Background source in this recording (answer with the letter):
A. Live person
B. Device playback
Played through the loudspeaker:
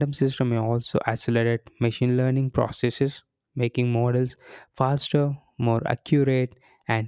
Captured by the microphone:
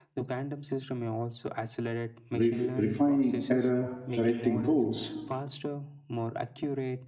B